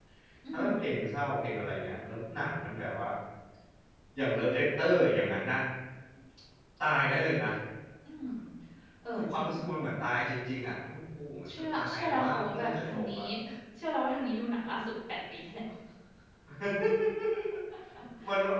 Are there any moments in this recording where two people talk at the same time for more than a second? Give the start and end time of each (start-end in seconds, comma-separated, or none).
11.7-13.2